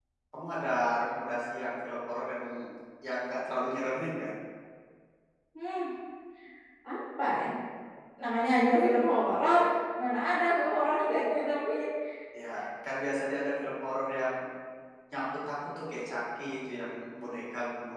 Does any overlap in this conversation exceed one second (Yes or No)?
No